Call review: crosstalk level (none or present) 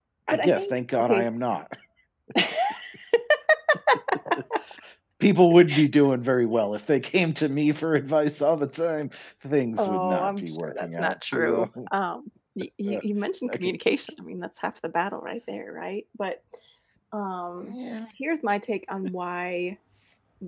present